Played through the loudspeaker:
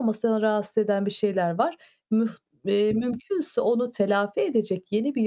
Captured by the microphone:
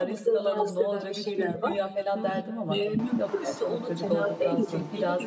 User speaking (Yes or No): Yes